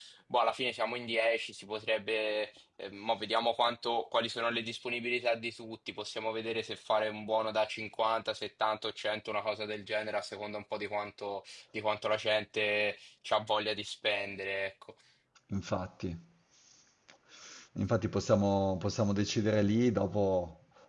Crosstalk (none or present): none